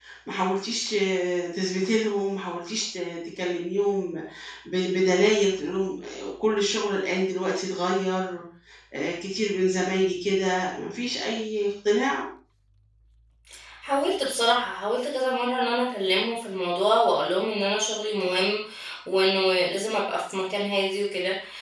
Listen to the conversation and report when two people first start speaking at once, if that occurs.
none

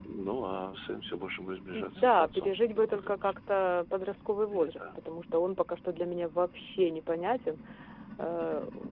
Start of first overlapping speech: 1.8 s

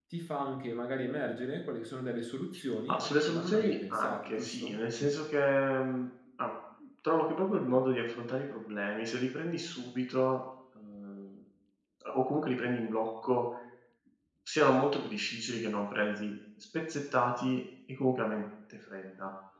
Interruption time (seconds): 2.9 s

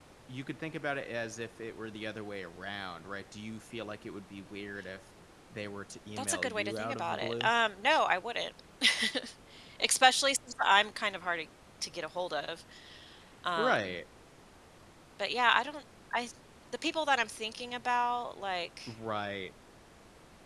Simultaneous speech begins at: 6.2 s

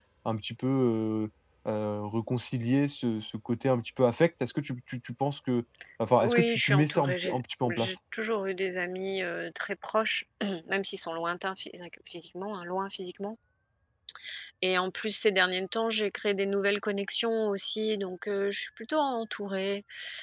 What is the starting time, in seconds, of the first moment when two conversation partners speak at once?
6.2 s

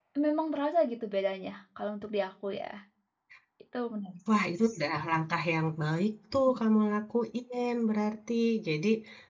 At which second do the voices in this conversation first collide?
none

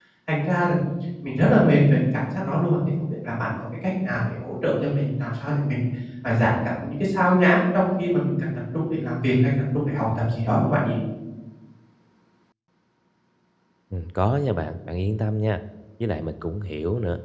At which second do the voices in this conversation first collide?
none

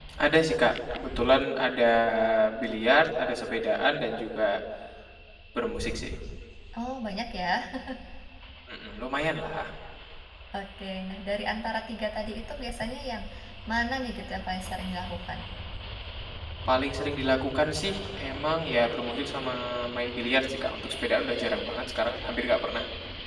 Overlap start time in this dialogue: none

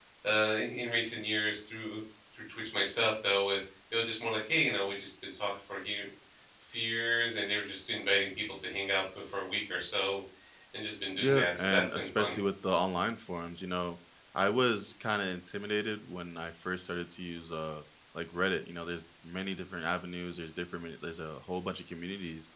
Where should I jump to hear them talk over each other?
11.2 s

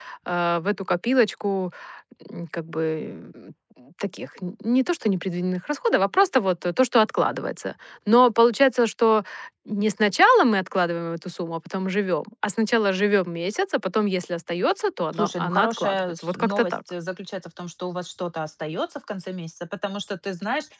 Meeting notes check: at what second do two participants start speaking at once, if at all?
15.1 s

